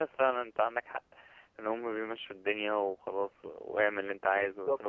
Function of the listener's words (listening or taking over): taking over